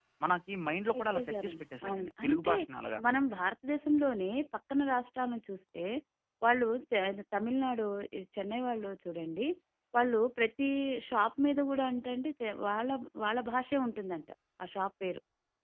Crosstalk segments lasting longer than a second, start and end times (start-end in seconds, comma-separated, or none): 0.9-2.5